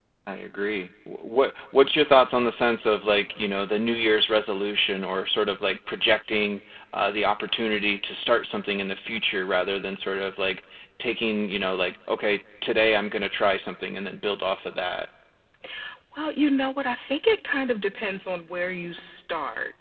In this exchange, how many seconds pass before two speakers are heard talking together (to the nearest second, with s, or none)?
none